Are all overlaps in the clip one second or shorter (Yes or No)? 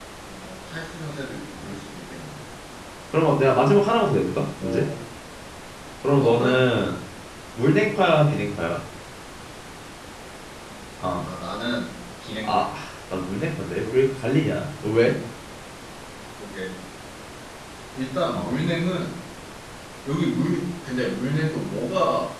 Yes